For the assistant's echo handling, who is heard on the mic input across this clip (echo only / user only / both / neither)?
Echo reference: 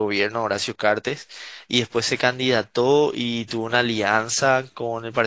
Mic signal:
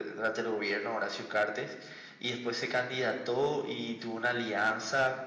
echo only